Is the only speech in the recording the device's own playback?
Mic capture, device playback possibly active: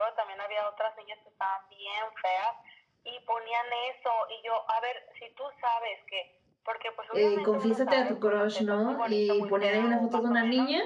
No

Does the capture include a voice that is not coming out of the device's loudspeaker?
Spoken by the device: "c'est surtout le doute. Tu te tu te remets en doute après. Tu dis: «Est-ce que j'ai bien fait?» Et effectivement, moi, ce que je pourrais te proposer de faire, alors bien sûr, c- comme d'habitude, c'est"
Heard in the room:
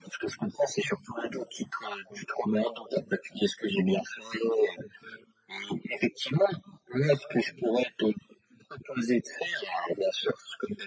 No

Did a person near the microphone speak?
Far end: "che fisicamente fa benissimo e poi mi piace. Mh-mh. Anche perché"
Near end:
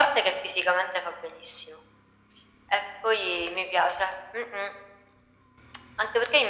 No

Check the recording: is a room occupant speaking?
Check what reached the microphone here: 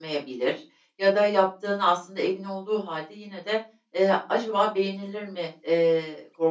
Yes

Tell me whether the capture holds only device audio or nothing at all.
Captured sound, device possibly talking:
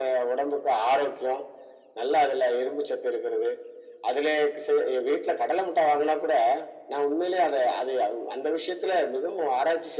Yes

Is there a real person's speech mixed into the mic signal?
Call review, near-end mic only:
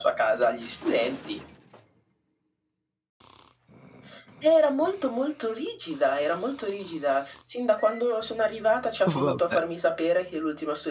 Yes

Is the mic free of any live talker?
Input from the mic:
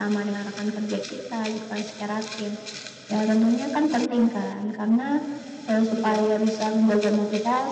No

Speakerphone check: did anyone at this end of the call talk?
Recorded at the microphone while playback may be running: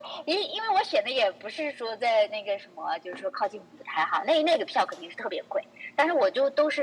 No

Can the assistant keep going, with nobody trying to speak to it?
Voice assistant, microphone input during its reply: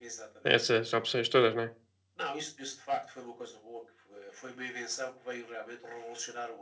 No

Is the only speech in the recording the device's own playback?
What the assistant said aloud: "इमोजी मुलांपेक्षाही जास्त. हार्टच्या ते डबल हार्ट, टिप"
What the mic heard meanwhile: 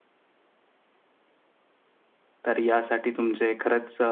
No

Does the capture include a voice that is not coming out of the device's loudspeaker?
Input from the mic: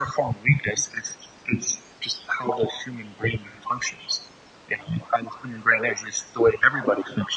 No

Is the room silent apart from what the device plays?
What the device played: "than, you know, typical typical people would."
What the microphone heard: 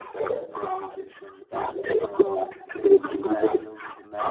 No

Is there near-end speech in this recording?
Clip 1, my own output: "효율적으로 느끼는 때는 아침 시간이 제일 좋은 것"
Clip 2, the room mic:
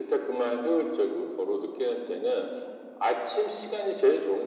No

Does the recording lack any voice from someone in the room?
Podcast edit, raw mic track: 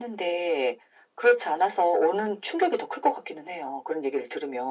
Yes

